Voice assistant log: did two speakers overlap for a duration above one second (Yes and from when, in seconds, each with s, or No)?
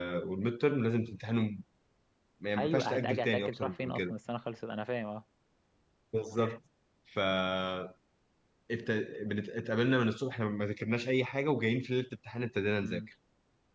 Yes, from 2.6 s